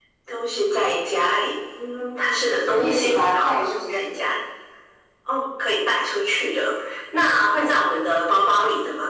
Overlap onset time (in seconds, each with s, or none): 2.7 s